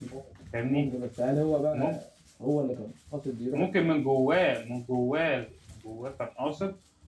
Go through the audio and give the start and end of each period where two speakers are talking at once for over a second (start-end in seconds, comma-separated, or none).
none